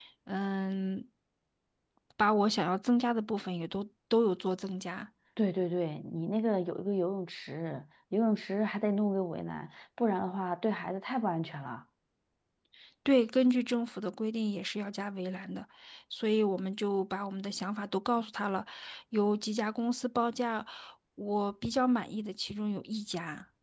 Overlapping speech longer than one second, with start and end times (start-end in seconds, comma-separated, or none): none